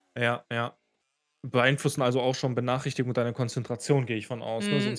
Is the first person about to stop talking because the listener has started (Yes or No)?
Yes